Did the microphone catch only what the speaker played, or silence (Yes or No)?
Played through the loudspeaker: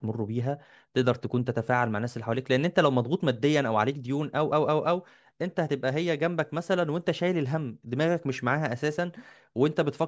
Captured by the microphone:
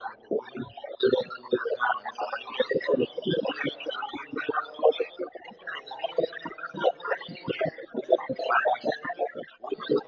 Yes